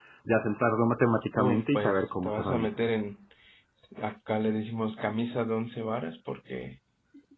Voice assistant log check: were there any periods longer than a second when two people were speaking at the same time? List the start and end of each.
1.4-2.8

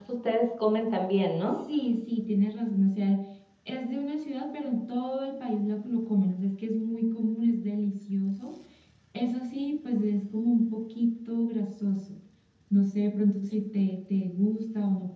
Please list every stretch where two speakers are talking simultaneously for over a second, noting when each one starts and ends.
none

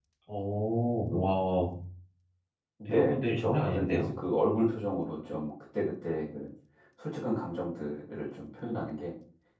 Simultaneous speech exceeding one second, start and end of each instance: 2.8-4.1

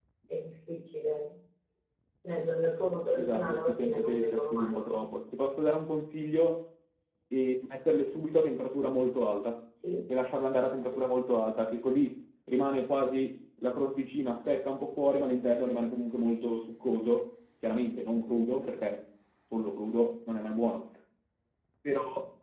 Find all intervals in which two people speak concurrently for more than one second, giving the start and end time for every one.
3.1-5.1

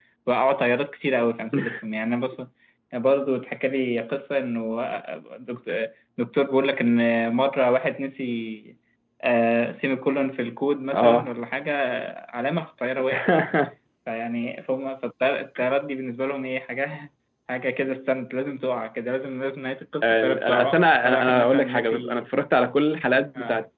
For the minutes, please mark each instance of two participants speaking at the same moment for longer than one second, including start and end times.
20.0-22.2

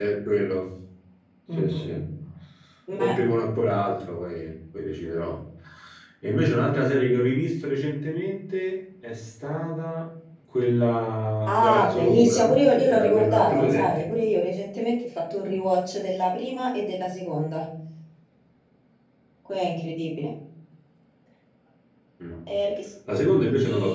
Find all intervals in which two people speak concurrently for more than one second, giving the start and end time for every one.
11.5-14.1

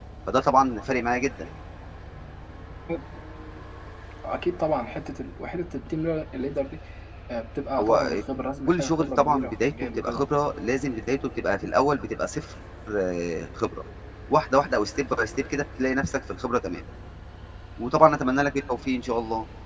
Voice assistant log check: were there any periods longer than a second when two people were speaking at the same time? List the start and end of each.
8.7-10.2

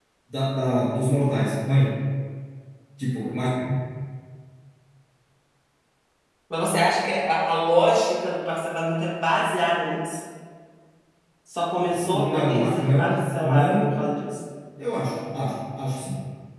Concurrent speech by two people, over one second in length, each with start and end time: 12.1-14.0

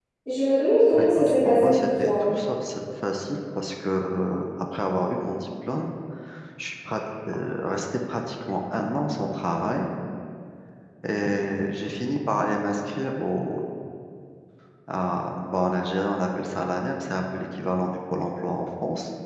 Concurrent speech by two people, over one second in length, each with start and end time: 0.9-2.2

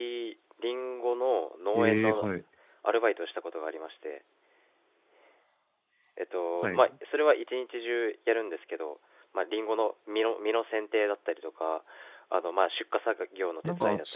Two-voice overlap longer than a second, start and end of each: none

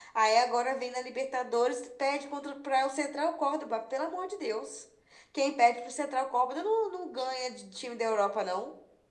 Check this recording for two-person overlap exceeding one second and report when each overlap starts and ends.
none

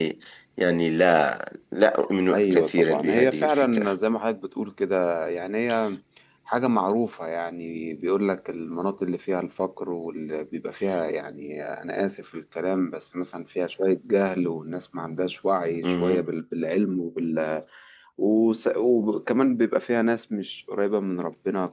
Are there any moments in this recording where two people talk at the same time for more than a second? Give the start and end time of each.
2.3-3.9

